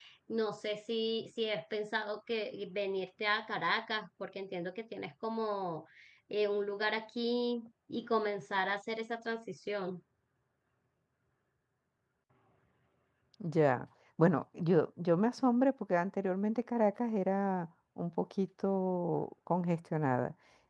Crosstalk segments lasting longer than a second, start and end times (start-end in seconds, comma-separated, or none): none